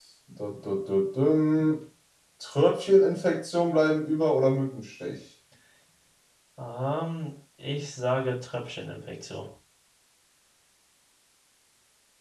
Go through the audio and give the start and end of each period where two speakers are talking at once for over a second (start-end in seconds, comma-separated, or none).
none